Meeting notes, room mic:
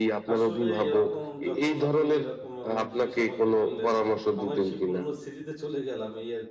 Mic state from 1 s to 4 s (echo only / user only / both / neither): both